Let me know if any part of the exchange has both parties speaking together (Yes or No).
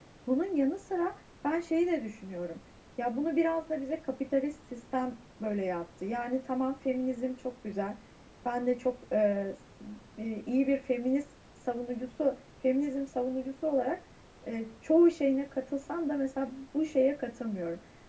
No